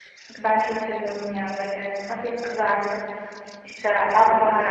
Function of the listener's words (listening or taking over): listening